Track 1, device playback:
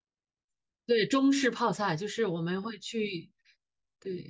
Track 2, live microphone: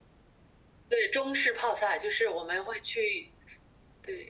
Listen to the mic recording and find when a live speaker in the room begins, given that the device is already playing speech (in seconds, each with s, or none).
none